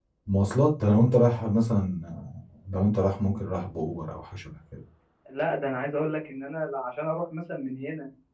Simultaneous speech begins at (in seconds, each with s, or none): none